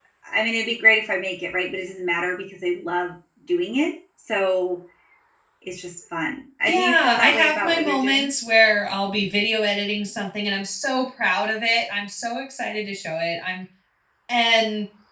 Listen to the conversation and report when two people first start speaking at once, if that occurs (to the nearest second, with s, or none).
7 s